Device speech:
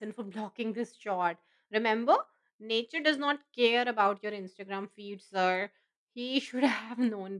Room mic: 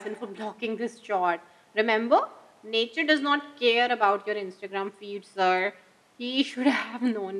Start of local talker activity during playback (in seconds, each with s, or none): none